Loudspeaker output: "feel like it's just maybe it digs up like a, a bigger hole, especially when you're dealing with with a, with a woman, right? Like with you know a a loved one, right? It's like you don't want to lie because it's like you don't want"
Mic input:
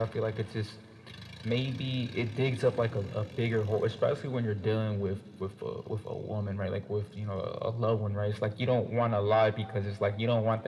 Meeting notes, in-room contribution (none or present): none